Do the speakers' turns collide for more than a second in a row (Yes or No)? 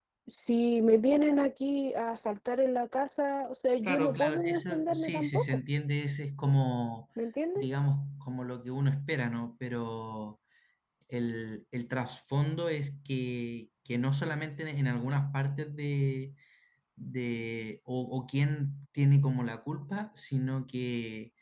Yes